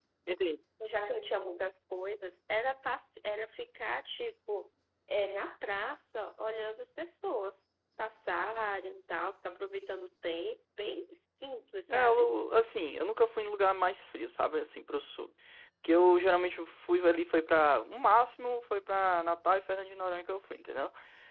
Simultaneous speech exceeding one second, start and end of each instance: none

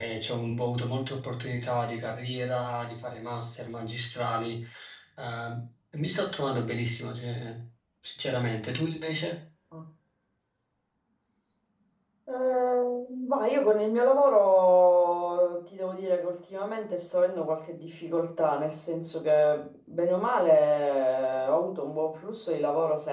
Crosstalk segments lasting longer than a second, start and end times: none

